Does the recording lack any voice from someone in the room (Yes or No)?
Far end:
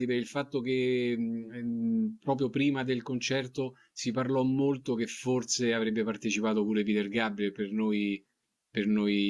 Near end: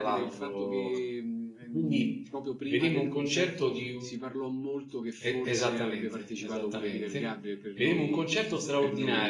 No